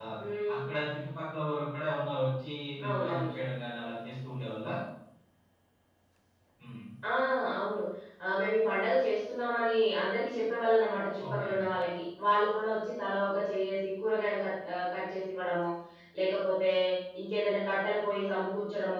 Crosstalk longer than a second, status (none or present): none